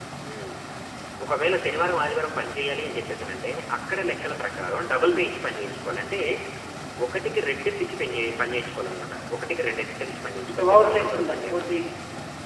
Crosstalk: present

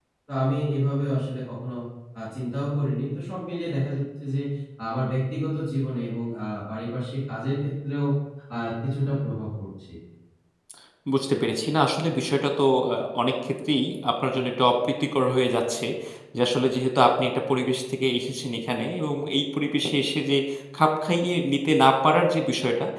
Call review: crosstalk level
none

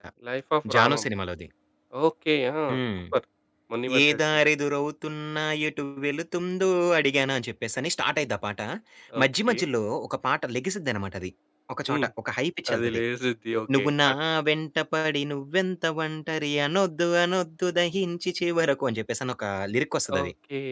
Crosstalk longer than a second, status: none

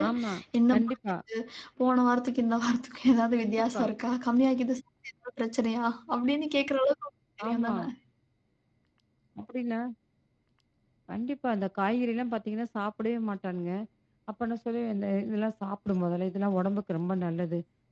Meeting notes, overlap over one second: none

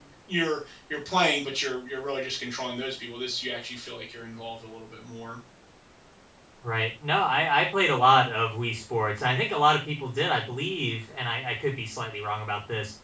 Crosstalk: none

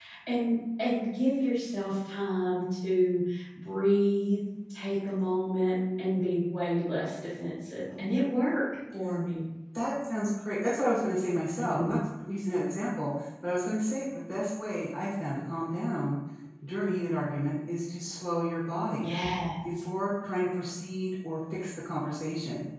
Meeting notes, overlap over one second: none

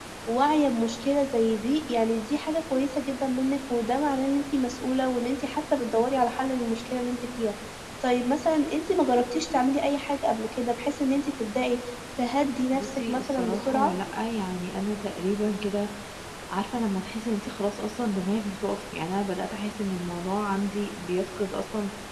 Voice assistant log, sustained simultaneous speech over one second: present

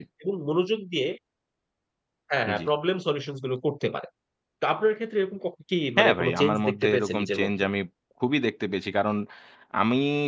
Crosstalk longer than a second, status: present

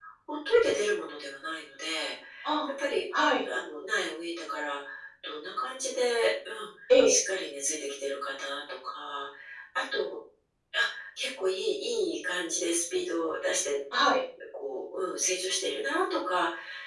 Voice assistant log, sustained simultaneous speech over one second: none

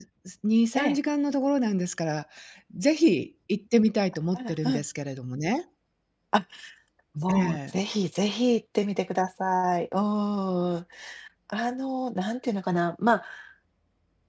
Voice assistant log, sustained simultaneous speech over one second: none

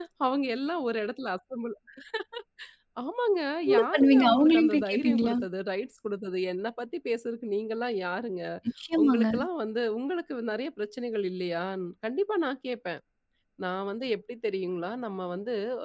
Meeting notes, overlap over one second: present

